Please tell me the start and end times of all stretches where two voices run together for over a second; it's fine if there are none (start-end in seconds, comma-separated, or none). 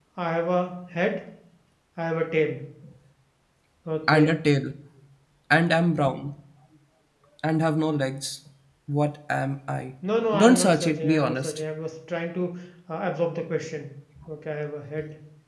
10.4-11.6